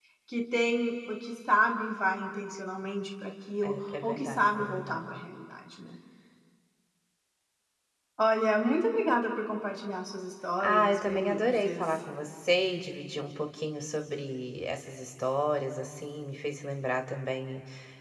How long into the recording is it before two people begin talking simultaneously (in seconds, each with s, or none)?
3.7 s